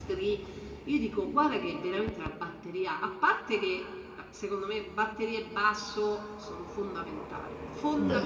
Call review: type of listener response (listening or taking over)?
listening